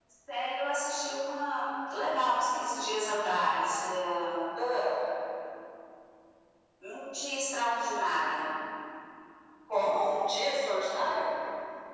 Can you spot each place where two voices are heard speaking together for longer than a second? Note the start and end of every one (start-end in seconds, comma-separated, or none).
none